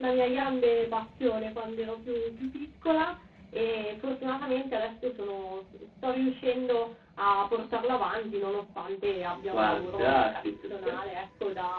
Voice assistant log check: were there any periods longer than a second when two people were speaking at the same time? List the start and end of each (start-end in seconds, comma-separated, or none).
9.5-11.0